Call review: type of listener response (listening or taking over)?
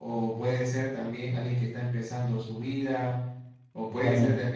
listening